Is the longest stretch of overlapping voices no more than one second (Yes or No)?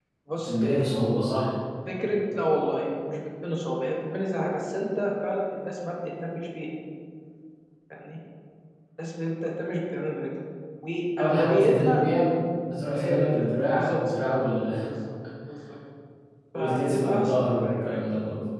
No